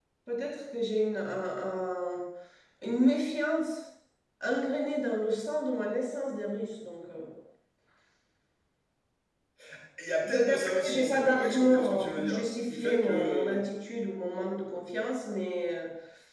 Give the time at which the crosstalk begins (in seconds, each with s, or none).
10.3 s